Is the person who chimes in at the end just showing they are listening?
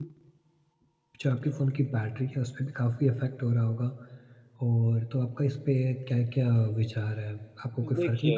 Yes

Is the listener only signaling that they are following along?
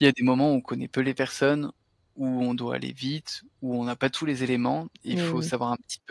Yes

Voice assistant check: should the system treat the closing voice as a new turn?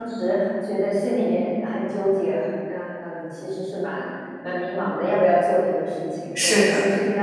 No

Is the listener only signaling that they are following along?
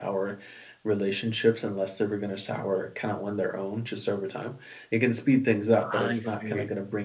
Yes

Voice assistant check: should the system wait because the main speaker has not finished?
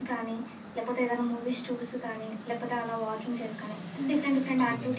No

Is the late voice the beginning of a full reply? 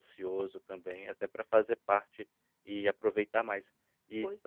No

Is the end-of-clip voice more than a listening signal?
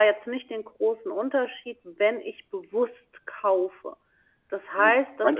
Yes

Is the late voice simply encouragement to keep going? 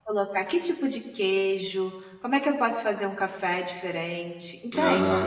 Yes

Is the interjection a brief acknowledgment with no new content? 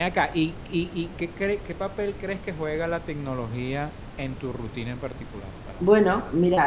No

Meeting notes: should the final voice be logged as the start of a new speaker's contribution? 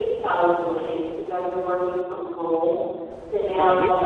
No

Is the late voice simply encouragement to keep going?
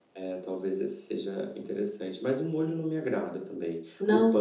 Yes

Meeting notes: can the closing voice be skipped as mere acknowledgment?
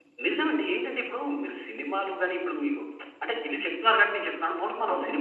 Yes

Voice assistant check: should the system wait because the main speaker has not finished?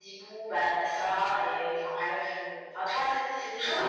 No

